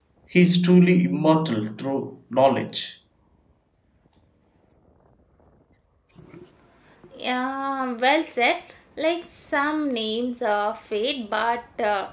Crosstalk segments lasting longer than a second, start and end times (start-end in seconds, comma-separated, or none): none